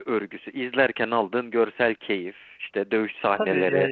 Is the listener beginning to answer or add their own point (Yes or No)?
Yes